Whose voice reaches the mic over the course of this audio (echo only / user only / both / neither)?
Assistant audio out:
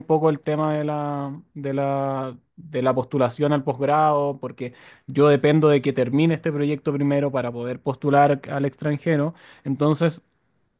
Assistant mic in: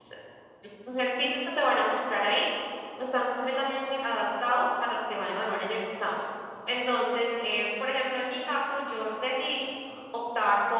user only